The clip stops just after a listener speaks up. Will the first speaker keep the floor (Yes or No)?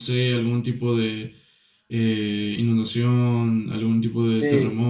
No